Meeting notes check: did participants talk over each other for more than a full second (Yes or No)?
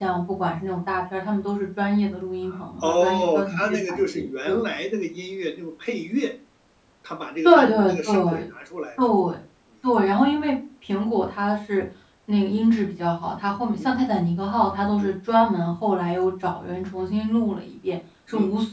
Yes